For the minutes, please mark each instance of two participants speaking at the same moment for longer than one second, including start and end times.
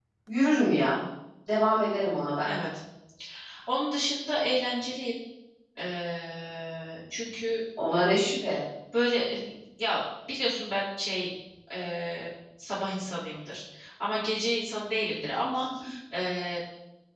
none

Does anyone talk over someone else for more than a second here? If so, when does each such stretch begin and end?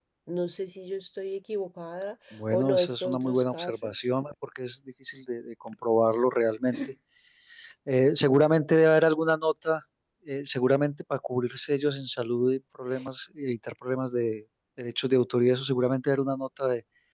2.5-3.9

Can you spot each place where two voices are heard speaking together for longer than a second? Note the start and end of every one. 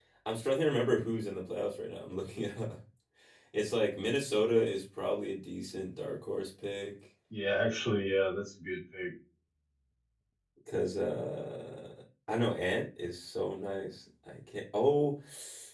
none

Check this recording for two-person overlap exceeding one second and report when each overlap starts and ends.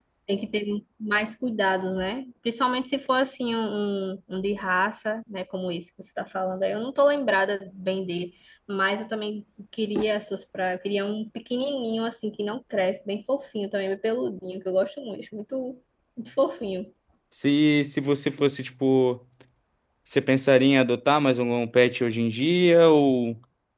none

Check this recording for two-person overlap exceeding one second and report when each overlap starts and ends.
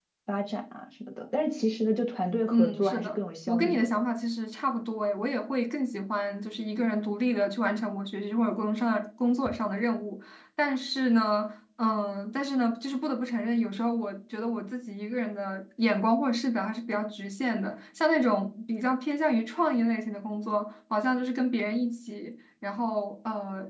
2.5-3.9

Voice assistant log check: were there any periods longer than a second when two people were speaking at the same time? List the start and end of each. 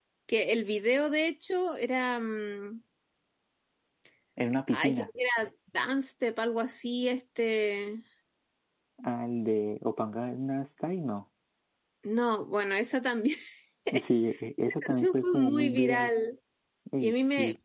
14.9-16.1

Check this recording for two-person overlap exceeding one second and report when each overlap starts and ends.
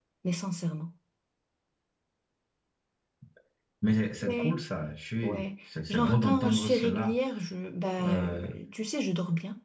5.9-7.1

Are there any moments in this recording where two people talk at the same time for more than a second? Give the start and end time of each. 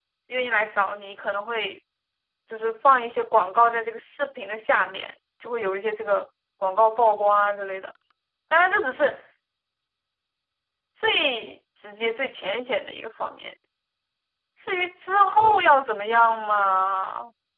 none

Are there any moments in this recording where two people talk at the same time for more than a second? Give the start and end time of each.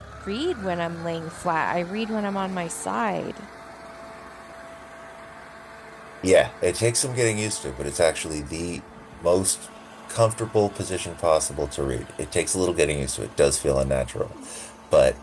none

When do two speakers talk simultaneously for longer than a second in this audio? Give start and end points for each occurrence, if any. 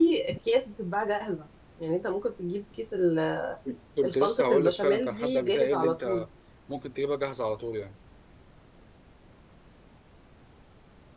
4.0-6.2

